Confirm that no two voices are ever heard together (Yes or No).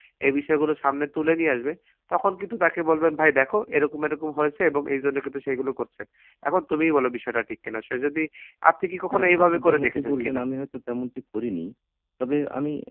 No